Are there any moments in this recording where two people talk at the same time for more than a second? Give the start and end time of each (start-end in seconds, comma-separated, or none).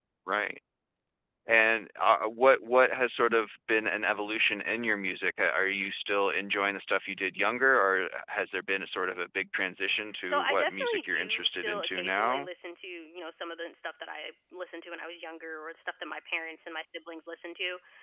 10.2-12.5